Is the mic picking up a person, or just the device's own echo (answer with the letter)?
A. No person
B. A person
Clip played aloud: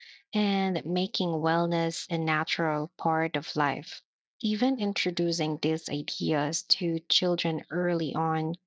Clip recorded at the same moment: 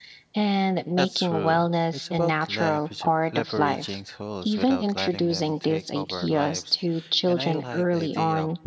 B